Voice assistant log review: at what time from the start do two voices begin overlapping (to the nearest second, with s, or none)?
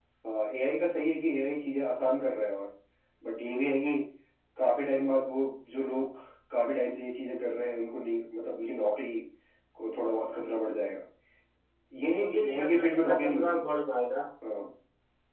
12 s